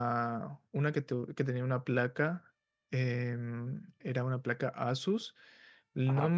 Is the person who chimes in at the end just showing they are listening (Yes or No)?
Yes